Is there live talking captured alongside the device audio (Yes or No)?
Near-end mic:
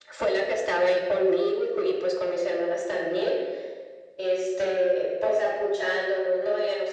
No